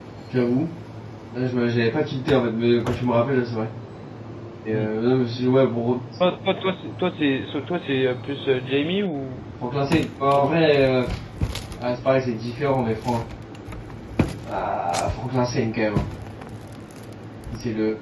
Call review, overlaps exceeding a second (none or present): none